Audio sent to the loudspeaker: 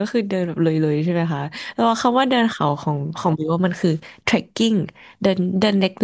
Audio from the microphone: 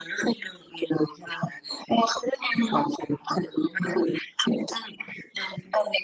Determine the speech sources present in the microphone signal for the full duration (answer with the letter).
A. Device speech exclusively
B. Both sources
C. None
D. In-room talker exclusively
A